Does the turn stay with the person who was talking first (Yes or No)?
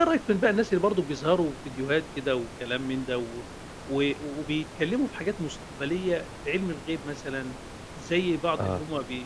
Yes